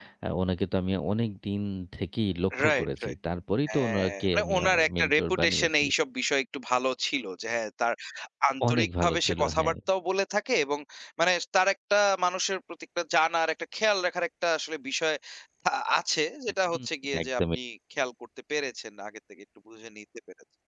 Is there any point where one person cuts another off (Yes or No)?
Yes